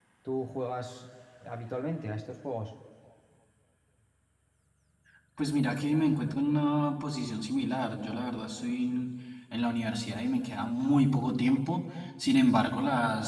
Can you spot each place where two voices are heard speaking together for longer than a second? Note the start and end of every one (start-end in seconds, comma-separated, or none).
none